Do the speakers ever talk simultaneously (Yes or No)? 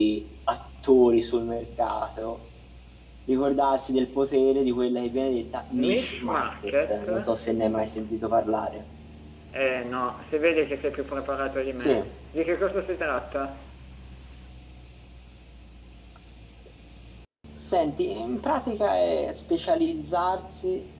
Yes